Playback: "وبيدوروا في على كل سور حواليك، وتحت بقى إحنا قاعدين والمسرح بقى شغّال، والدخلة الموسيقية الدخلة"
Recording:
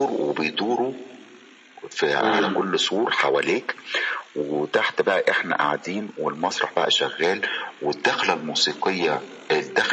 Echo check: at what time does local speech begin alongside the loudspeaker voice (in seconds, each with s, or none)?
2.2 s